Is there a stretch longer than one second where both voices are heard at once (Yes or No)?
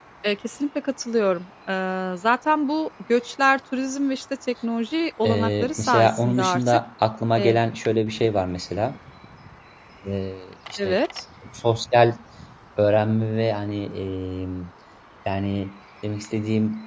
Yes